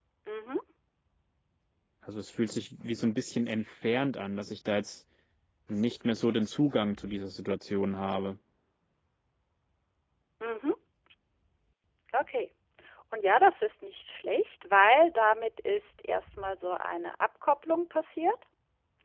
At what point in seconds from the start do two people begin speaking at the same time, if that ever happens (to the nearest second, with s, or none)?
none